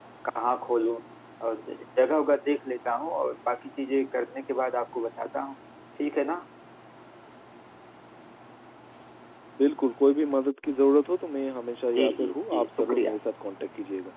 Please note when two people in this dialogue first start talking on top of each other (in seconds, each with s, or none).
11.9 s